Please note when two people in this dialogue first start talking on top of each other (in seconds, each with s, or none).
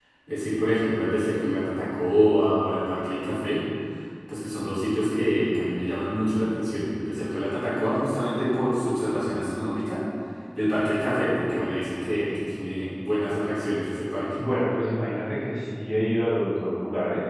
none